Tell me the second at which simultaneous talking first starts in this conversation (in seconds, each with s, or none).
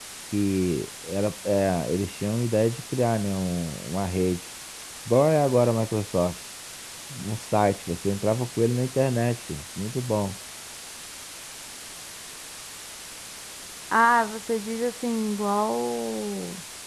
none